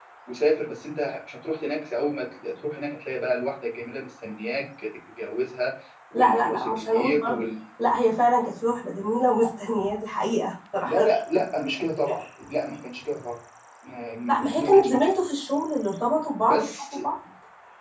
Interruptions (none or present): present